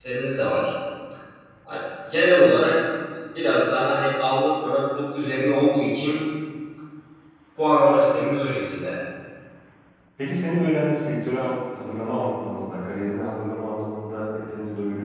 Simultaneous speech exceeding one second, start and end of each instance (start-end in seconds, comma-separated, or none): none